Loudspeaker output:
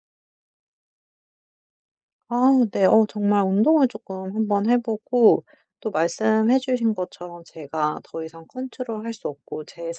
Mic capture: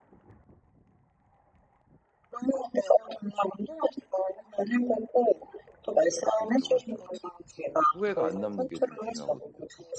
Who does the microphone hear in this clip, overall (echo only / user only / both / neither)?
both